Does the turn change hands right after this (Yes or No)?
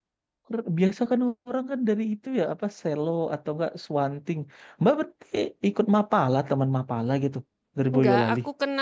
Yes